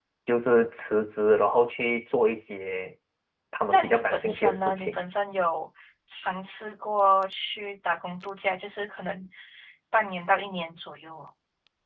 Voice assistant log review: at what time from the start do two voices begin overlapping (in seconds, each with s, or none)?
3.7 s